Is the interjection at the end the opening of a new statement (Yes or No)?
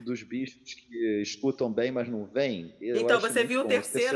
Yes